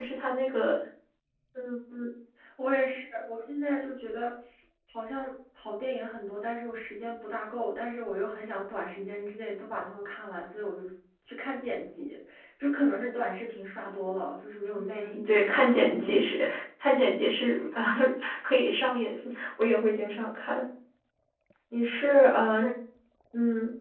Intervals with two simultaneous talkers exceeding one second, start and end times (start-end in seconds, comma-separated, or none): 14.8-16.1